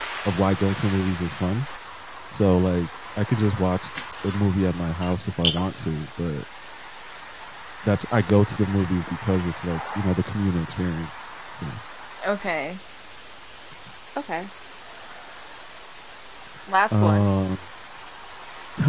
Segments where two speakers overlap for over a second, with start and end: none

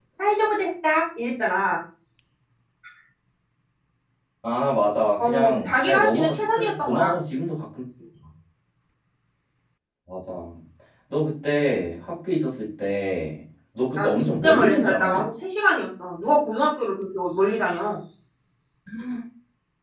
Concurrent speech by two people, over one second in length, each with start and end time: 5.2-7.1, 14.0-15.2

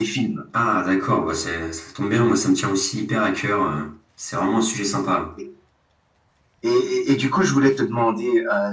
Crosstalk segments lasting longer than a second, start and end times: none

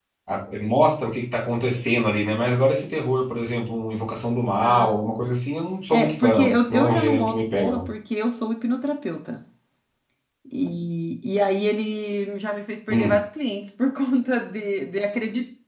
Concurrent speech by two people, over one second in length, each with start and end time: 5.9-7.9

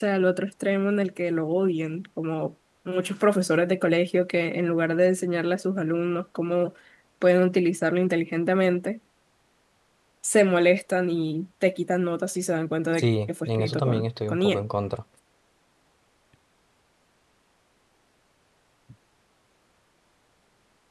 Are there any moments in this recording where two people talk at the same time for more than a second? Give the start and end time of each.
12.9-14.6

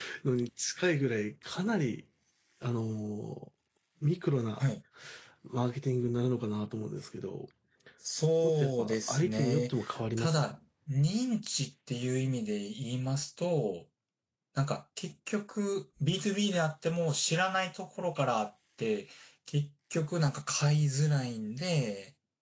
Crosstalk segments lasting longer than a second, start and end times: 8.5-9.7

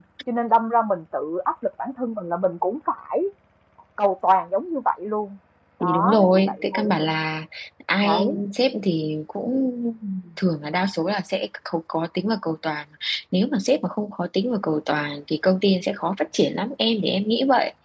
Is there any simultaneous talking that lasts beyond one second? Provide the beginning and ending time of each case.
5.8-7.1

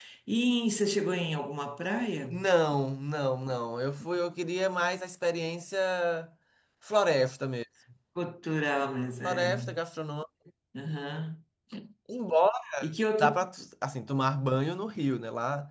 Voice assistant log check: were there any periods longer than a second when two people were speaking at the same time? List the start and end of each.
none

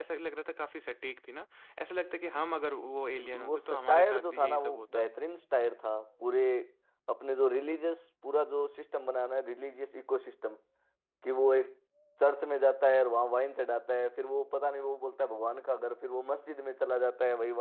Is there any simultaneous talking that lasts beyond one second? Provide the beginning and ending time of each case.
3.2-5.0

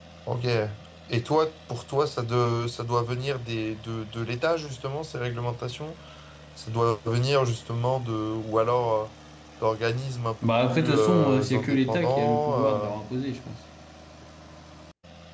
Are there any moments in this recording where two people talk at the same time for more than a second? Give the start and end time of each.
10.4-12.9

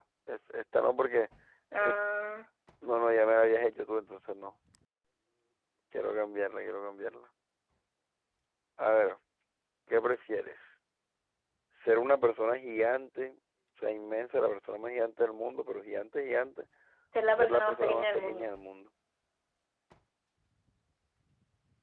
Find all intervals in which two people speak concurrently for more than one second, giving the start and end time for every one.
17.3-18.5

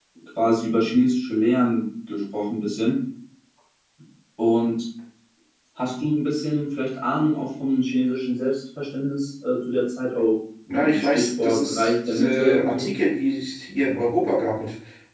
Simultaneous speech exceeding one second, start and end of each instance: 10.7-12.9

